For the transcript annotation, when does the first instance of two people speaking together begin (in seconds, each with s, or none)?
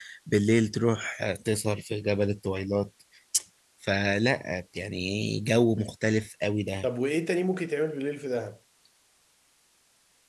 none